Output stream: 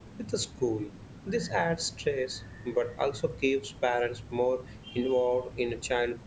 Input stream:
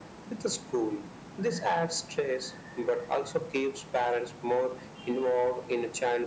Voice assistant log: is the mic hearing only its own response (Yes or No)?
Yes